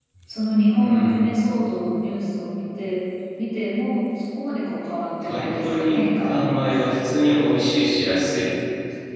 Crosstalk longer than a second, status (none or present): present